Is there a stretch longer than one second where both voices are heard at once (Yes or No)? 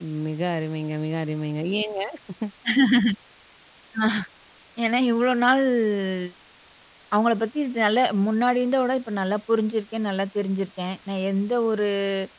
No